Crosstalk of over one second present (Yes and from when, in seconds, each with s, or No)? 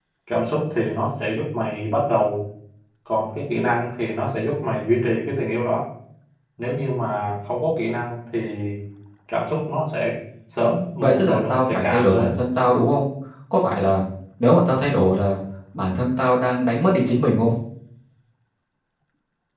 Yes, from 11.0 s